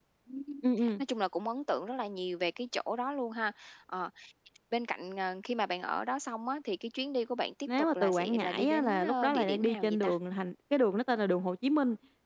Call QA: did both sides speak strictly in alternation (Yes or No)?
No